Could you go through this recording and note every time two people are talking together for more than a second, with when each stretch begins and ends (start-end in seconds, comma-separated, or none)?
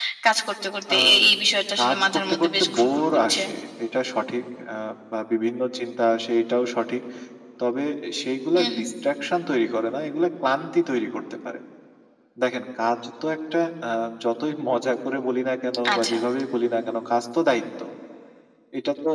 1.8-3.4